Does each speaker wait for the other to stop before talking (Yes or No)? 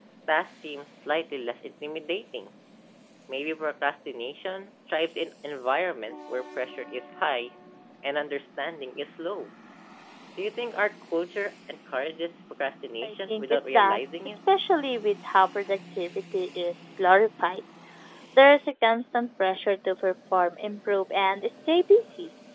No